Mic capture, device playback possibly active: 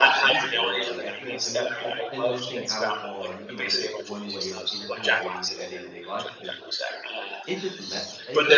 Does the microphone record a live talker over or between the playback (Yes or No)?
Yes